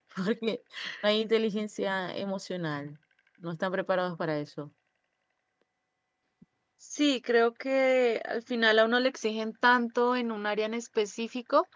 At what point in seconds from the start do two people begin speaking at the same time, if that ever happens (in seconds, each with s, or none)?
none